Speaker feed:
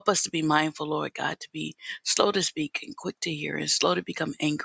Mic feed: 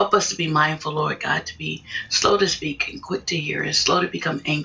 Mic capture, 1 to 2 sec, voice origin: echo only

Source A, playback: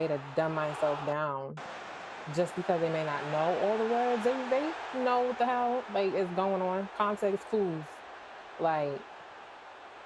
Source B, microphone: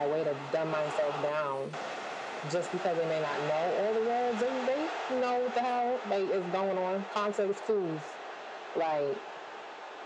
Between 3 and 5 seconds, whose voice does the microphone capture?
echo only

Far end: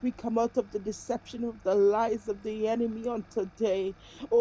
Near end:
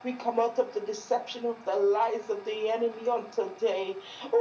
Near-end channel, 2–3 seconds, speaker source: echo only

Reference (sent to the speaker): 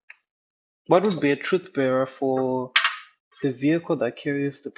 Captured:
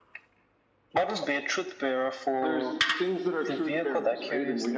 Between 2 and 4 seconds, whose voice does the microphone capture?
both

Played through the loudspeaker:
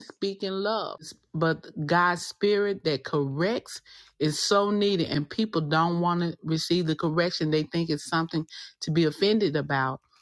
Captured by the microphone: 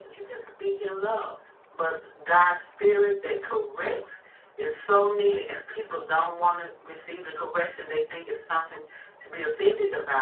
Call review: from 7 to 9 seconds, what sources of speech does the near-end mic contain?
echo only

